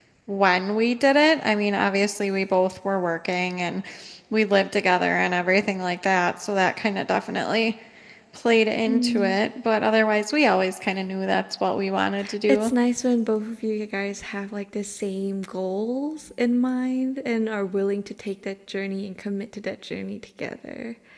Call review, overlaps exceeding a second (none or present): none